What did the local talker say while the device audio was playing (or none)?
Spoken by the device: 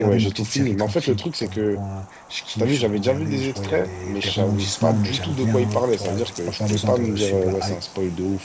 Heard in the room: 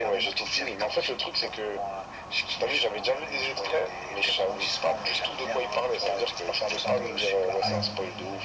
Hmm. Ouais.